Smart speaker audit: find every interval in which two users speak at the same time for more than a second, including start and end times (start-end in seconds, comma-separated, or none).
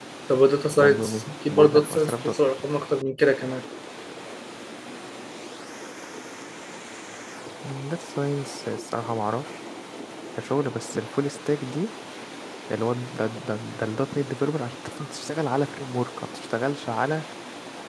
0.8-2.6